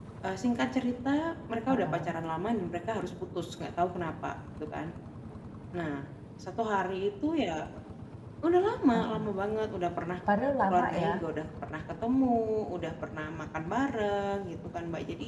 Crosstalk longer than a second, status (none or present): none